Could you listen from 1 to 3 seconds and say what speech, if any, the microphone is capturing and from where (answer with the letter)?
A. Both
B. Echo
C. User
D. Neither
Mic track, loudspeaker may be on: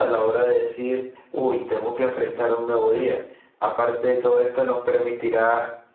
B